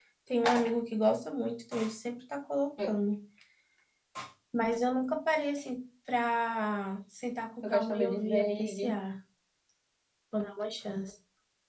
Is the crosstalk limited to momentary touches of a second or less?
No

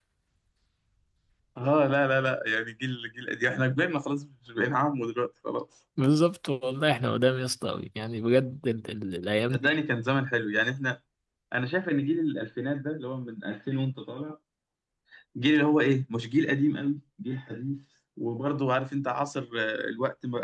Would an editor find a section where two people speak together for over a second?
No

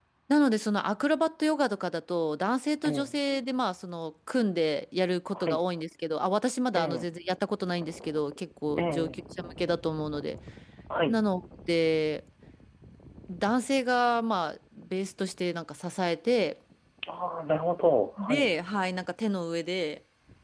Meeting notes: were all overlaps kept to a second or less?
Yes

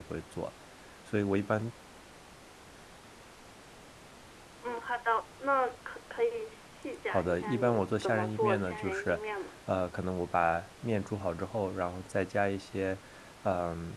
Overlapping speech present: Yes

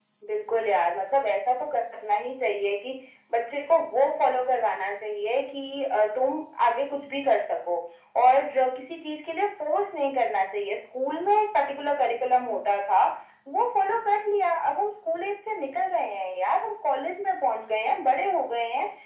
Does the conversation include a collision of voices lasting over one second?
No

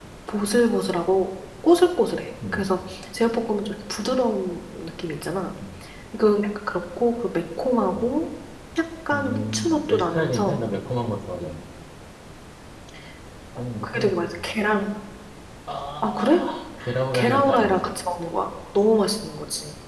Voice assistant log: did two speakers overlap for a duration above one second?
Yes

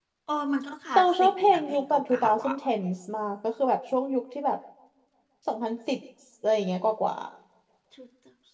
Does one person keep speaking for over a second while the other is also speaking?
Yes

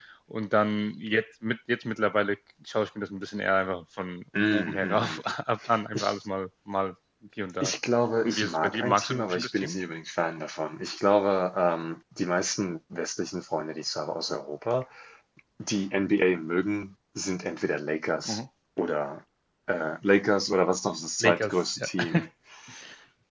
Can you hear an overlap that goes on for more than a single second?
Yes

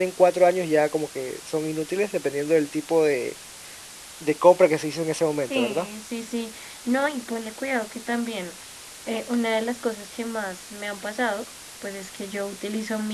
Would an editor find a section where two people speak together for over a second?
No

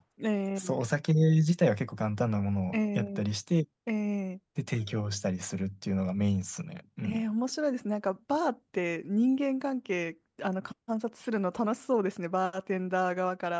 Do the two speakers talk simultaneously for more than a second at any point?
No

